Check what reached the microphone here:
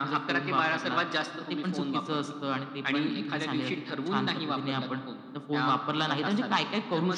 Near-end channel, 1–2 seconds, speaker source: echo only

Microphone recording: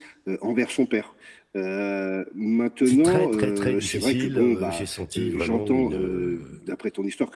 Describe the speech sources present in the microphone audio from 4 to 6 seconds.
both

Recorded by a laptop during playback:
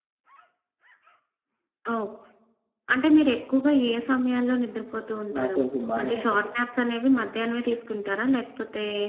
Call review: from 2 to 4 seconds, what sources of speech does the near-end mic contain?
echo only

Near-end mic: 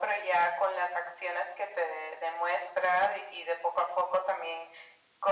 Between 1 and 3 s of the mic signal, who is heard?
echo only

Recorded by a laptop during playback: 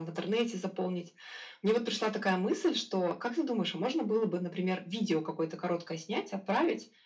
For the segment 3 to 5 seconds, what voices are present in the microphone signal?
echo only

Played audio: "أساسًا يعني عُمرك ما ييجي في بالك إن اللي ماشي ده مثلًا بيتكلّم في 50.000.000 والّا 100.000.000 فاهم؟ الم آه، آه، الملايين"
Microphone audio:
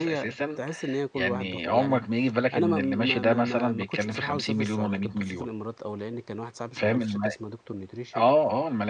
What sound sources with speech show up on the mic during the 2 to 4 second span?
both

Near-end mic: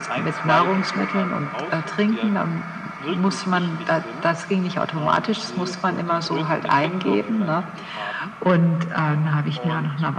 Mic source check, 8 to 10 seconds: echo only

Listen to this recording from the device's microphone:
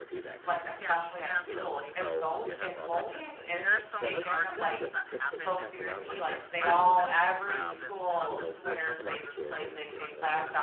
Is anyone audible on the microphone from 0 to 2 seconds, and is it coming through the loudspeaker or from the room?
both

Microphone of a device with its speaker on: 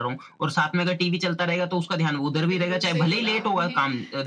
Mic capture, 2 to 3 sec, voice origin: both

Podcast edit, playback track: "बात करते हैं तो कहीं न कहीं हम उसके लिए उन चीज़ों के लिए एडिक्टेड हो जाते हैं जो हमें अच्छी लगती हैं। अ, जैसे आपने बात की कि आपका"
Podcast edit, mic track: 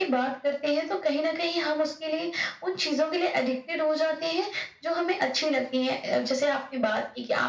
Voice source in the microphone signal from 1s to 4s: echo only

